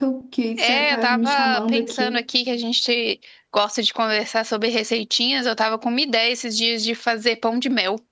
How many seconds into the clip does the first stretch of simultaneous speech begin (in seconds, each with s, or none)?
0.6 s